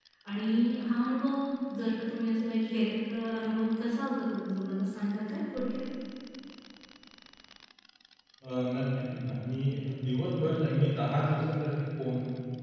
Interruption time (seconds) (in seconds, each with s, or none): none